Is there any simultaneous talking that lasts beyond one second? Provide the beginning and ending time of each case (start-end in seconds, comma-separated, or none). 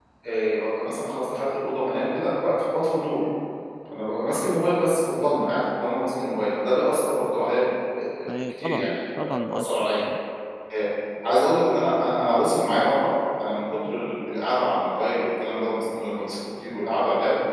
8.4-10.0